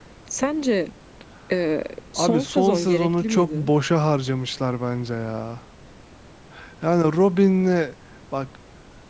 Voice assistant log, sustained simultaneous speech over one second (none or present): present